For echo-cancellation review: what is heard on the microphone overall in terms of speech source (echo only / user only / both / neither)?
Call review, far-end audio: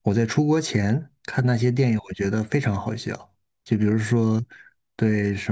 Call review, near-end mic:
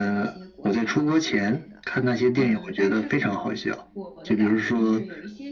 both